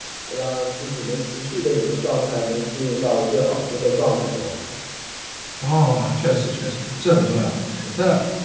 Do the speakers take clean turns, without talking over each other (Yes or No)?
Yes